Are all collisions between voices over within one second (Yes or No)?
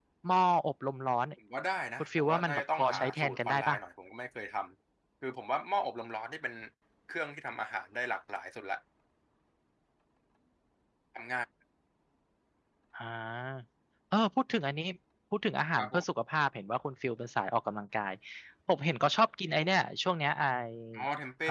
No